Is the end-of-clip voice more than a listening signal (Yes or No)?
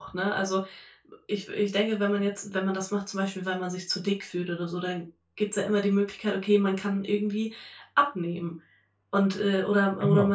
No